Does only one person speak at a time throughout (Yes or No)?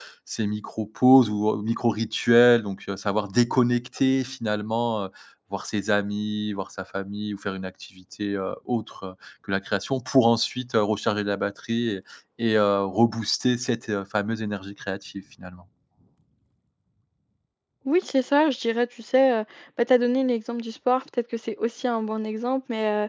Yes